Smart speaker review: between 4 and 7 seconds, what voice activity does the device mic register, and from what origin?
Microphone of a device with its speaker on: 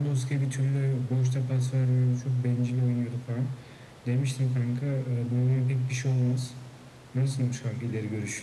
echo only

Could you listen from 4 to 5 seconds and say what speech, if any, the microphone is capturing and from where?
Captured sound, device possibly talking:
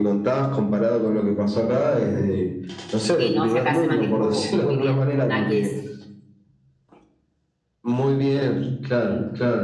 both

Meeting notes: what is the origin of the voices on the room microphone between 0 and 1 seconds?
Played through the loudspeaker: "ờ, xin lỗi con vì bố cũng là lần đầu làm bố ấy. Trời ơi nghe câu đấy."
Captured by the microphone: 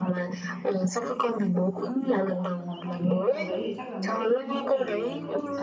echo only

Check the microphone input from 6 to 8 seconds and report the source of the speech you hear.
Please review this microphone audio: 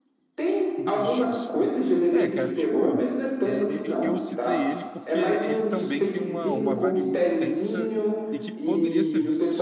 both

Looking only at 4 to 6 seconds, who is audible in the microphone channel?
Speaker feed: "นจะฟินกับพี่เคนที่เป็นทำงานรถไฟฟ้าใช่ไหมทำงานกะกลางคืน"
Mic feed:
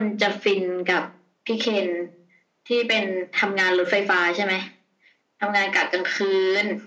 echo only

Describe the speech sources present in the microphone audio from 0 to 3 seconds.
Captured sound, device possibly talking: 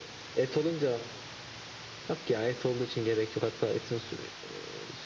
echo only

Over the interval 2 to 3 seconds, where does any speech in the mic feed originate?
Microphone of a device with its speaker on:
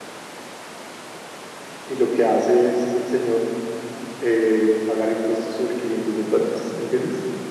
user only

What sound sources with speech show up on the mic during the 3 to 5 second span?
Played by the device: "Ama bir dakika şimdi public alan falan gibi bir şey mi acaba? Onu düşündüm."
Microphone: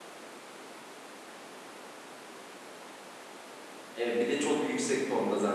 user only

